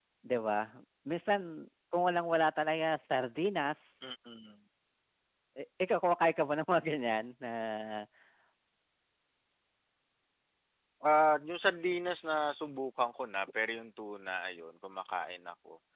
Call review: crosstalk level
none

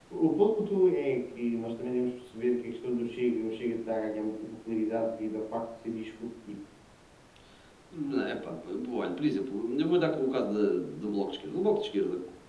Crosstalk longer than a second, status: none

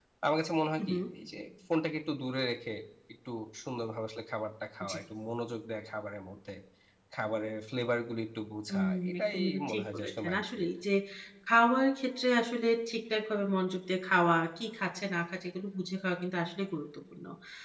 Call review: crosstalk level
present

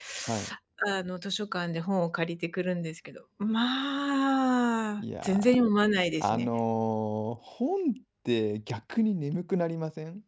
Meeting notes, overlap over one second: none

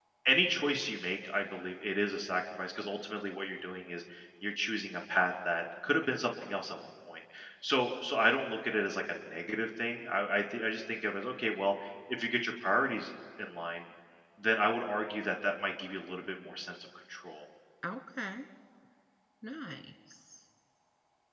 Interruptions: none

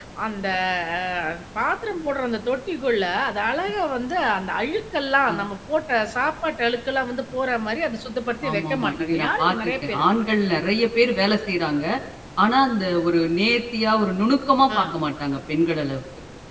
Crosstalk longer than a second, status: present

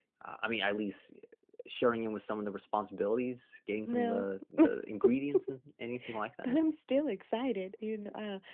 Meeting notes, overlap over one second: none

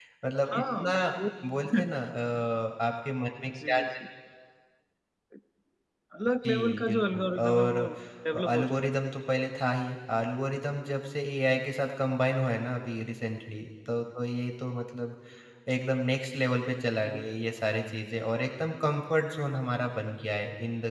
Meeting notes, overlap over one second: present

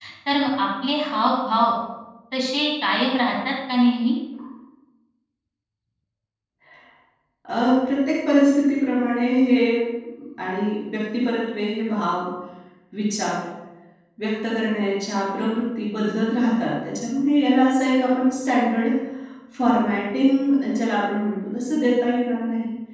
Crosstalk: none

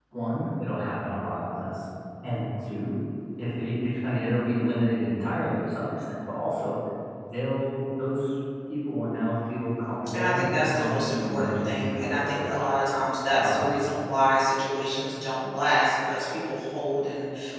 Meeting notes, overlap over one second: present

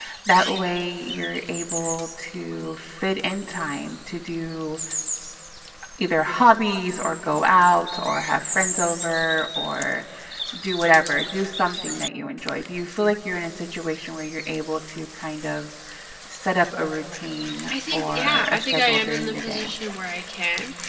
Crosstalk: present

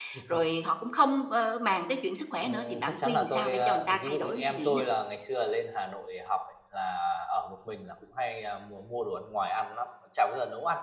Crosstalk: present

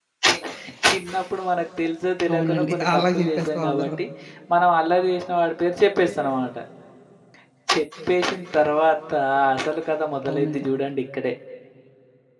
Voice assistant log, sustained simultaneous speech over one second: present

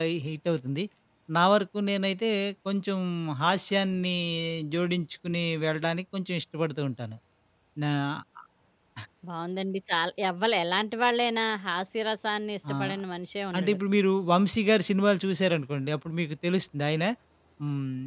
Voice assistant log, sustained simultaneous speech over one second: none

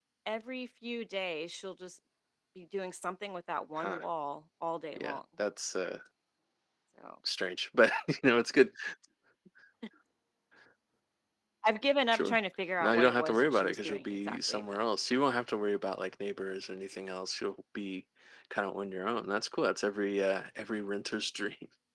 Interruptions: present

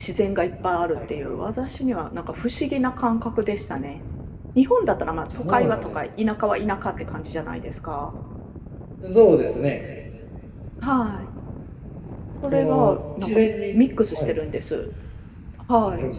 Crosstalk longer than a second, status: present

